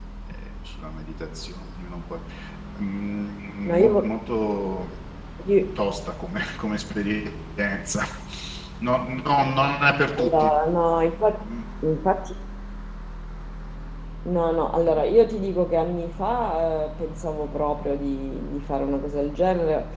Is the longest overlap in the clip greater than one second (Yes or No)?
No